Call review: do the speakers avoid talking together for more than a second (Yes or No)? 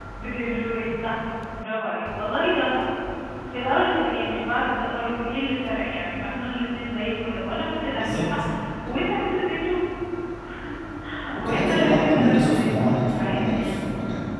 No